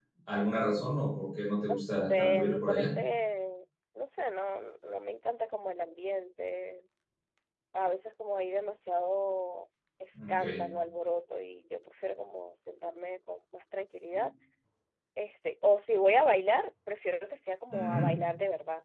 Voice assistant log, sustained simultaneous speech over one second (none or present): present